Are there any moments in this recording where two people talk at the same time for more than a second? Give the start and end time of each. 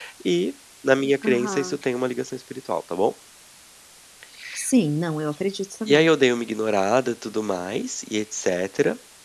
none

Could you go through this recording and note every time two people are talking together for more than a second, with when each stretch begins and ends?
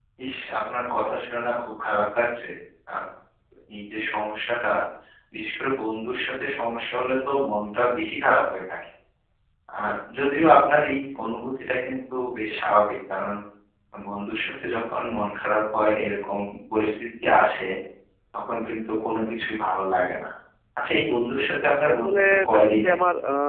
21.4-22.9

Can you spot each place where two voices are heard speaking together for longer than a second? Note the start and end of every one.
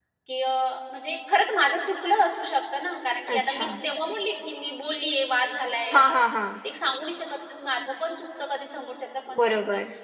none

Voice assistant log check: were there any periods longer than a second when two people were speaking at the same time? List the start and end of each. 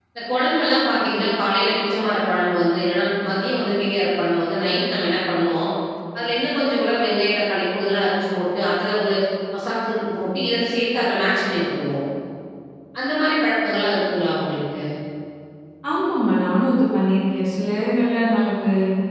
none

